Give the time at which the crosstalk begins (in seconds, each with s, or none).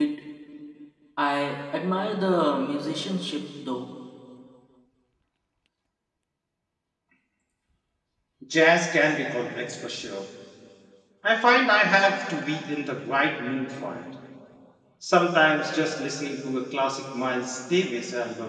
none